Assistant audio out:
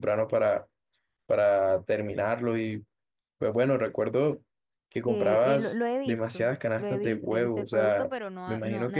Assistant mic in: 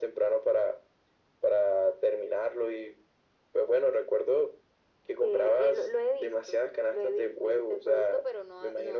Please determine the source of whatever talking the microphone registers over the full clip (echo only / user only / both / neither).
echo only